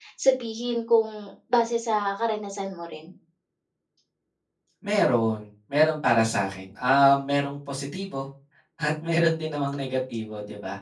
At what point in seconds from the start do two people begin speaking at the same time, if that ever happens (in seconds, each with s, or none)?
none